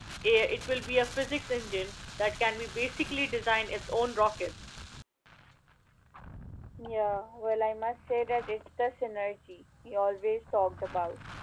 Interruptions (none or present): none